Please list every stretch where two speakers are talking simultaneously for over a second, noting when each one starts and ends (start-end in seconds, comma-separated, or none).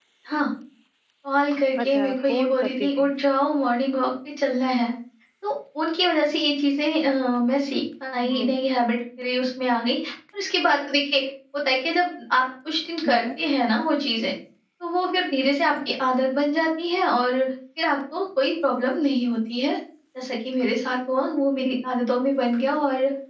1.8-3.1